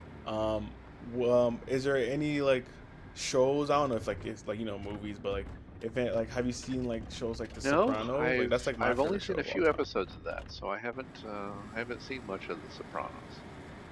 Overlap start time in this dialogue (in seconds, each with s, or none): 7.6 s